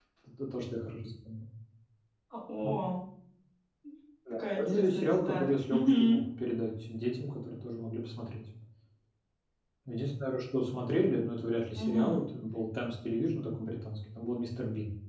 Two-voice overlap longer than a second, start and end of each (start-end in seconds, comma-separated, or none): 4.3-6.2